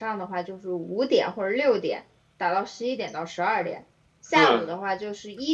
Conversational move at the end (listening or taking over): listening